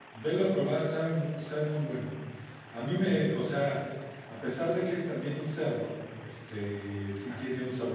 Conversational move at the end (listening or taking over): listening